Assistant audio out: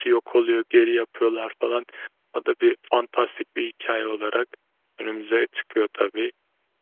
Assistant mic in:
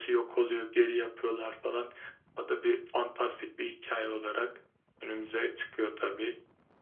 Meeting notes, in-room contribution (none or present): none